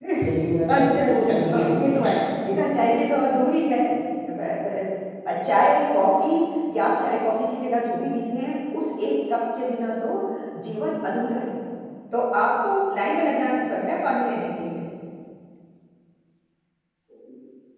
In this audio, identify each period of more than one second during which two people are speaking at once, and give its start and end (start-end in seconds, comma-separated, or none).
0.7-2.3